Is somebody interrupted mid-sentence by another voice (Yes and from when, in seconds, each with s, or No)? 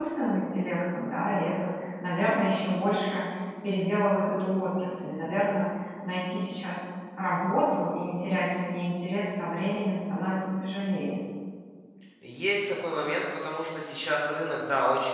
No